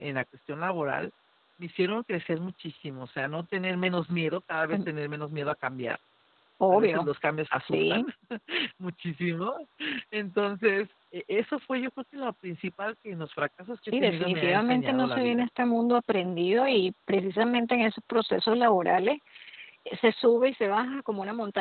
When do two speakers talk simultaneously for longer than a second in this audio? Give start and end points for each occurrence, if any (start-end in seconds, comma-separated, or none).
14.0-15.4